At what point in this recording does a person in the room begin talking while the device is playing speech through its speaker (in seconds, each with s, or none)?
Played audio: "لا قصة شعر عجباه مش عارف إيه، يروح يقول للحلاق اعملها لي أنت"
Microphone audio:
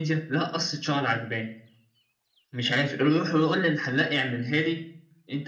none